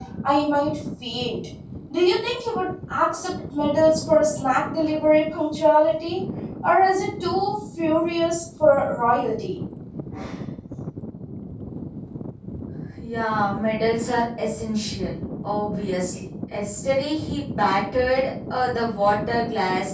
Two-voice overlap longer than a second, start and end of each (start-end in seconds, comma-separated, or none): none